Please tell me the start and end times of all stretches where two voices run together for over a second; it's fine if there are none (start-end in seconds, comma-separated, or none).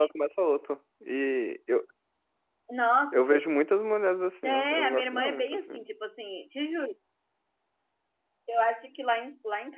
4.4-5.8